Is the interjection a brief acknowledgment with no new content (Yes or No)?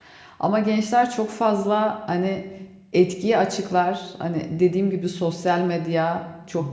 Yes